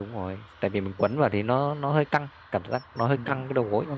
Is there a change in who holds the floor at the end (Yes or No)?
Yes